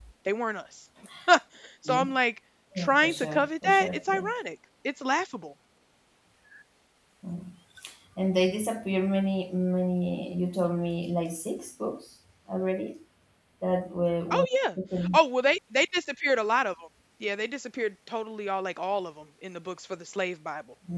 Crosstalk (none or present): present